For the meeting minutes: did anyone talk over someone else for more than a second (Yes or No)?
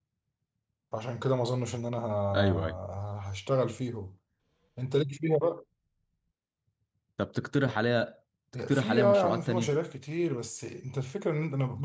Yes